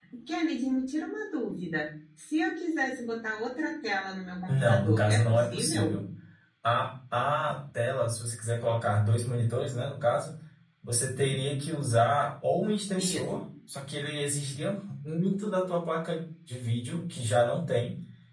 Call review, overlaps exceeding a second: present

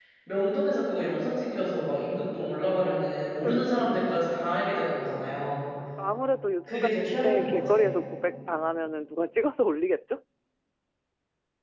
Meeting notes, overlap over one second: present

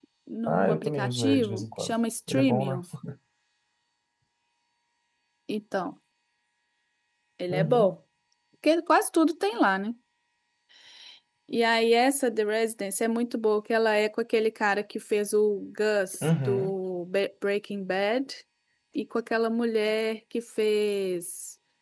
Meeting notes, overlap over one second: present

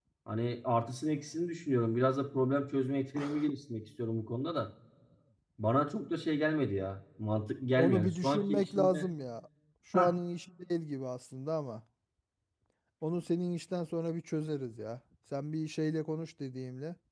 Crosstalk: present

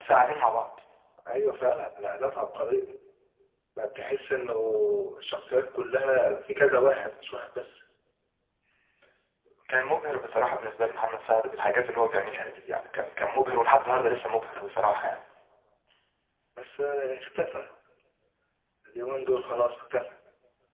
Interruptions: none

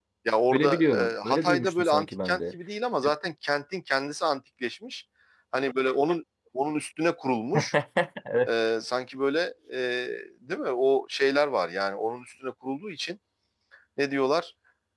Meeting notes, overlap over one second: present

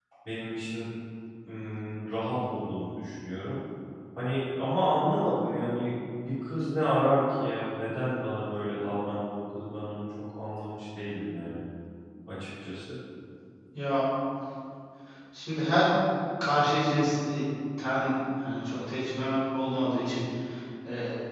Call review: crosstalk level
none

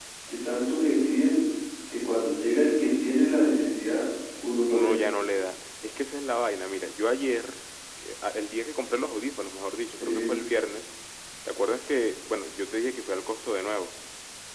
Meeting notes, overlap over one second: none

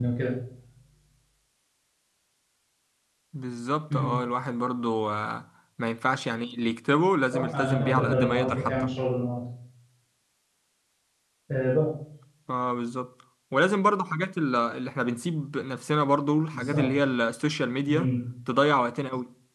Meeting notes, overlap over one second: present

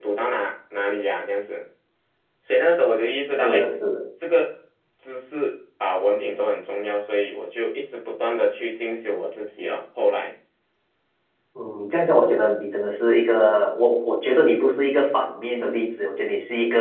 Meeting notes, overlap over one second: none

